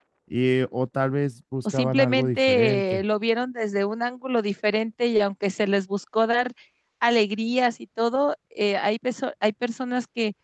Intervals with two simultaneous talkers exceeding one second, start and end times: 1.7-3.0

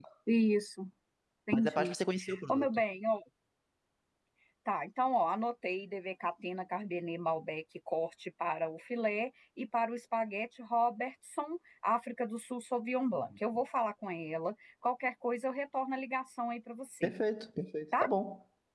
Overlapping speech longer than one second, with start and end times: none

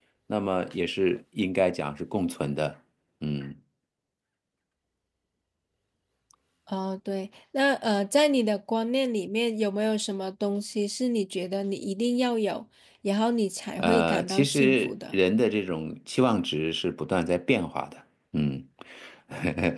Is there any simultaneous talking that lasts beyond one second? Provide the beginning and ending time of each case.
13.8-15.2

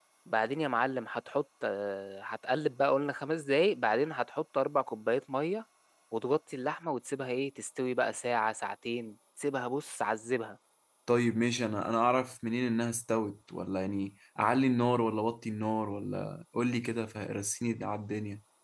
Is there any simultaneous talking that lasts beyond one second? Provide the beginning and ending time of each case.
none

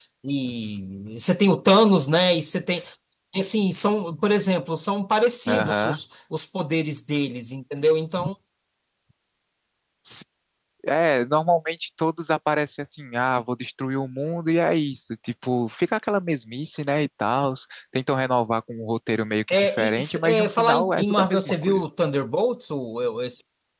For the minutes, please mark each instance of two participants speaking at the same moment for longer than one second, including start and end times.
19.5-21.8

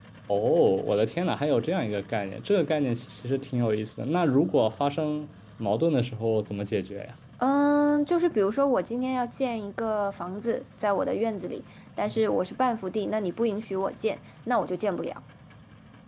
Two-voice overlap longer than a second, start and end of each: none

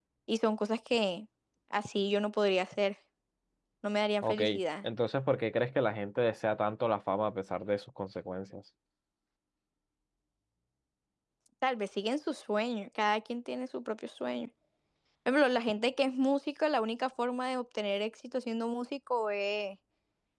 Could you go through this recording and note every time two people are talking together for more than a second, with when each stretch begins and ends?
none

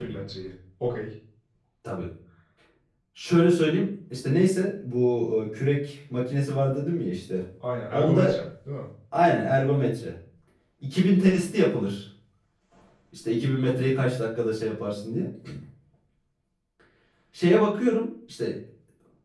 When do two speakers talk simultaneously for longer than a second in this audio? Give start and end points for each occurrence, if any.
none

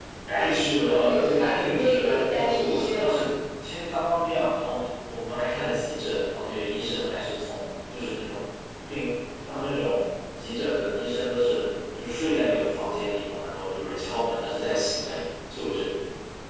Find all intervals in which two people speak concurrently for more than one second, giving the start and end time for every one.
0.9-3.2

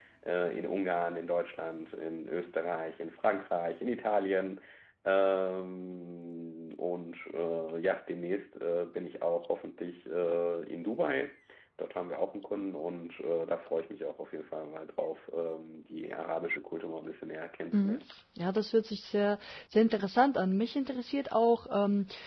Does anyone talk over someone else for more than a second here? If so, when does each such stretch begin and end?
none

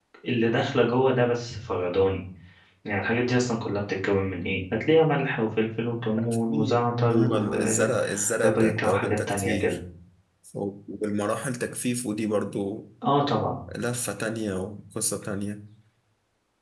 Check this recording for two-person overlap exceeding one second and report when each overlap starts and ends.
6.2-9.8

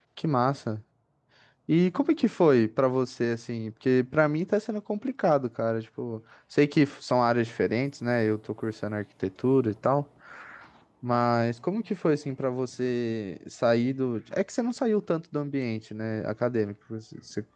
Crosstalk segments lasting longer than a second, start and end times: none

